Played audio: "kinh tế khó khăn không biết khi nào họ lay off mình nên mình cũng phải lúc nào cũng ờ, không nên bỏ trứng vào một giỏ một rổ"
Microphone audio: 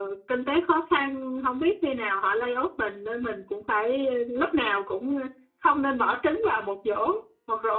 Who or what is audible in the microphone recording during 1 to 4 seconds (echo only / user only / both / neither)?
echo only